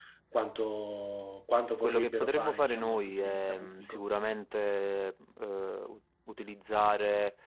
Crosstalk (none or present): present